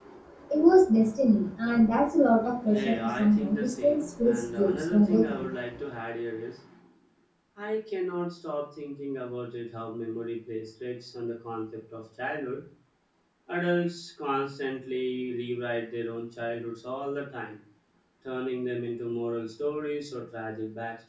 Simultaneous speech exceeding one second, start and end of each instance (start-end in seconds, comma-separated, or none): 2.7-5.5